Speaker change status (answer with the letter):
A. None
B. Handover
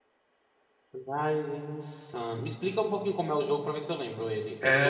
B